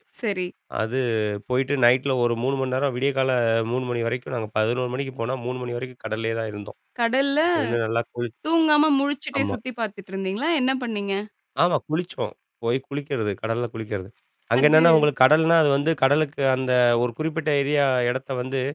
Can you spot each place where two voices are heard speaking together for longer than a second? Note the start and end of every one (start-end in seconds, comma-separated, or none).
none